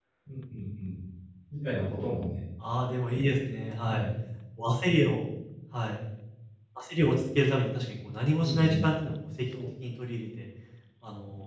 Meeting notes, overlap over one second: none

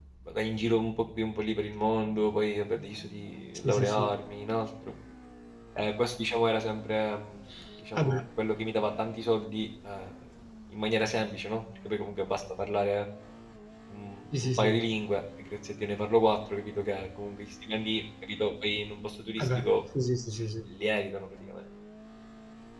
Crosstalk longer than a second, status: none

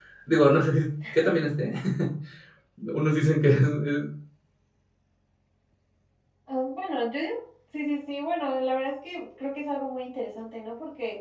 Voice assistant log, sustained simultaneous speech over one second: none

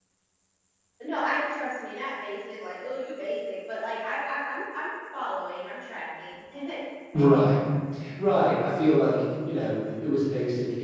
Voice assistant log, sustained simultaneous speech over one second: none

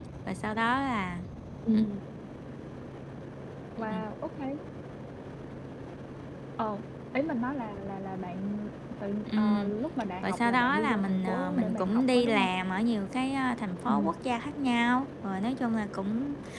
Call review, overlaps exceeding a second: present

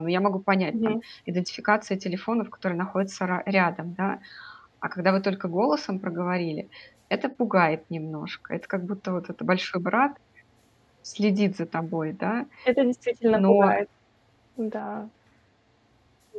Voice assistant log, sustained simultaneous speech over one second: none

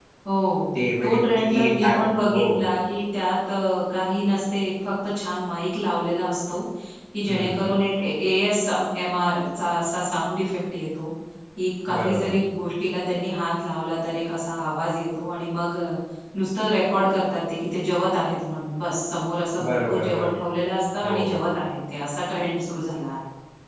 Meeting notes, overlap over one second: present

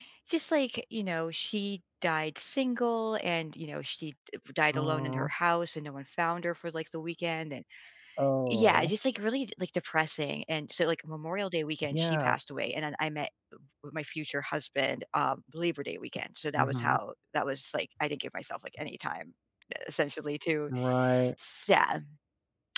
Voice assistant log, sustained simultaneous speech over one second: none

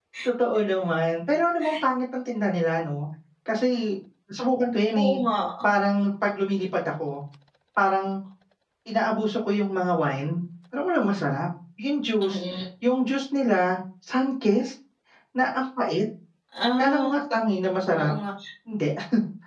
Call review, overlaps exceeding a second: none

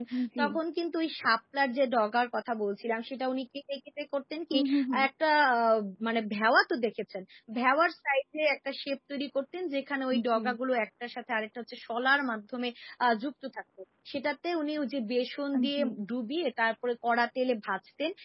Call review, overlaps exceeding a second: none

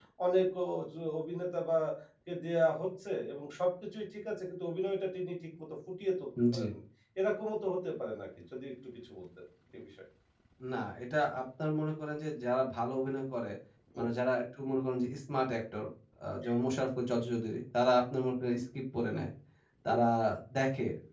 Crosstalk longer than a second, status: none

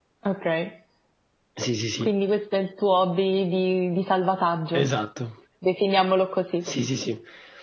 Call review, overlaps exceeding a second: none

